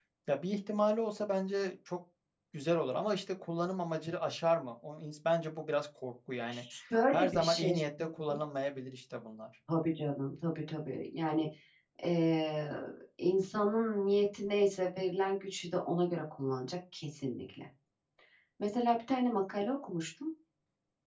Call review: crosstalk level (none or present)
present